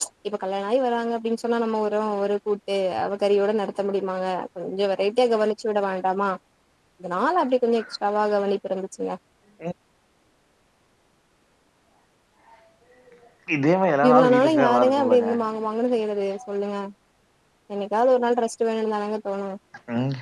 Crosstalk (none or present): present